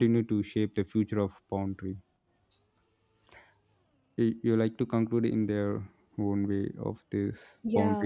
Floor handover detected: Yes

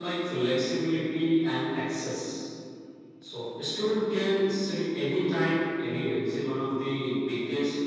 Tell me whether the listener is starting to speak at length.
No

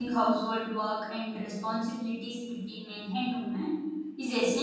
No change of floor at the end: Yes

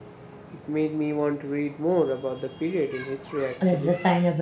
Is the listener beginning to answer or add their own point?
Yes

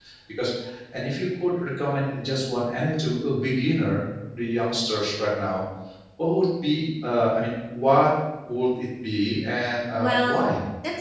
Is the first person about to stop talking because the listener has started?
Yes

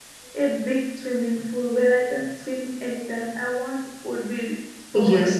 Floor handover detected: Yes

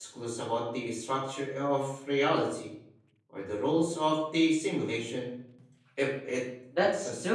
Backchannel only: No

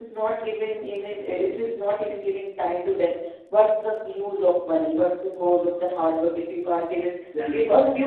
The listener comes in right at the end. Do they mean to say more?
No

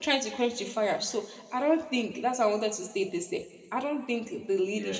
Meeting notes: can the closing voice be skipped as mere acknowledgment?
Yes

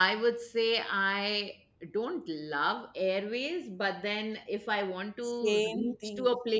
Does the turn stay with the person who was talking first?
Yes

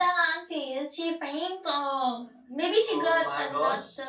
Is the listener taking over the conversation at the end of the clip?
Yes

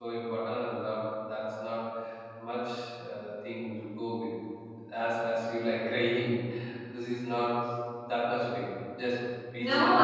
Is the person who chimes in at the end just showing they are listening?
No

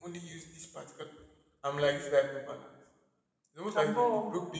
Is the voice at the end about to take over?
No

